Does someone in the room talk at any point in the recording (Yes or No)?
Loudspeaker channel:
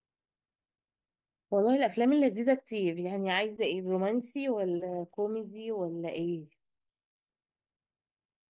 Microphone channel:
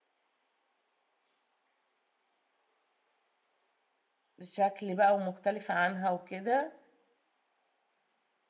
Yes